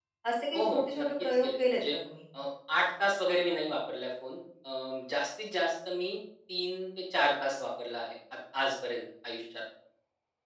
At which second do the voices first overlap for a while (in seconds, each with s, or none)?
0.6 s